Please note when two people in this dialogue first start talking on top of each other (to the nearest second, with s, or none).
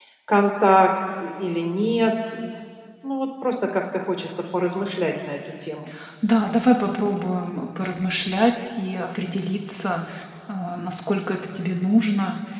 none